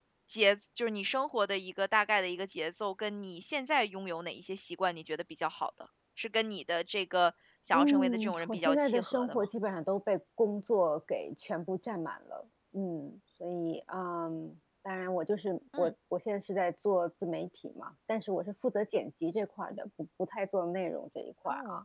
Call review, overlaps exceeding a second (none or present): present